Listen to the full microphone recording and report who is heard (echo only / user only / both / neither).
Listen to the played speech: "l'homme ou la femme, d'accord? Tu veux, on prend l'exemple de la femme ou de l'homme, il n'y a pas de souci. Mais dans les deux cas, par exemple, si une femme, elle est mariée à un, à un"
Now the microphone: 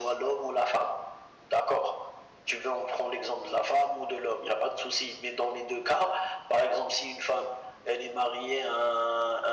echo only